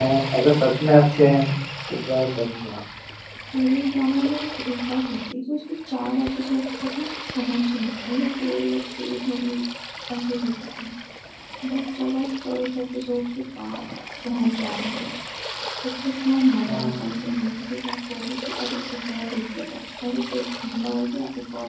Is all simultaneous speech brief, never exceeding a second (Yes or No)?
Yes